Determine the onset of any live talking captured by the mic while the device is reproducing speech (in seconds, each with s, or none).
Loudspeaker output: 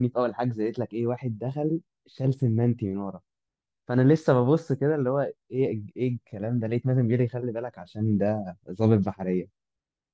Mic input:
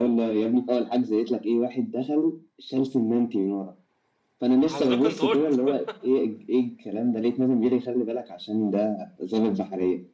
4.7 s